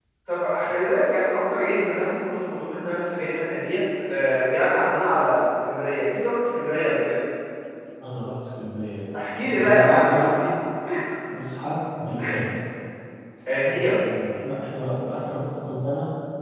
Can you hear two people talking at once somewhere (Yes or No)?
Yes